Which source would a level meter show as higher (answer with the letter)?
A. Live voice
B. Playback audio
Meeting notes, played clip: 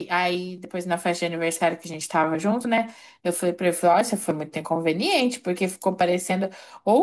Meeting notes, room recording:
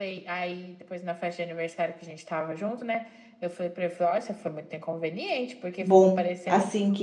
A